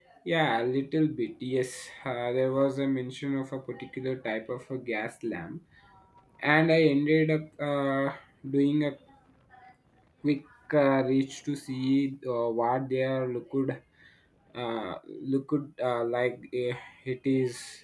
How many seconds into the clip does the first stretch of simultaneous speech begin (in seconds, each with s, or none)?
none